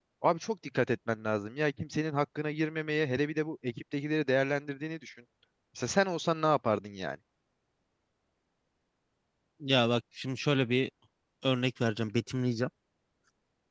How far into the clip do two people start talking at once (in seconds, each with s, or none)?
none